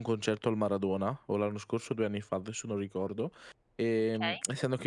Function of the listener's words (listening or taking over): listening